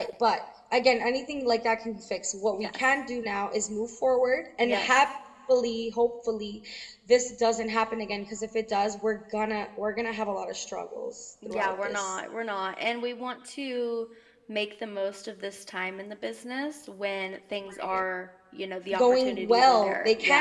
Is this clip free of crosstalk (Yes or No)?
No